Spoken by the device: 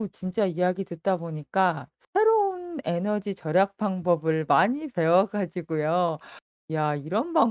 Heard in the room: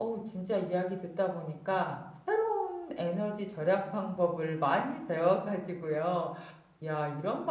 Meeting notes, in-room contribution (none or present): none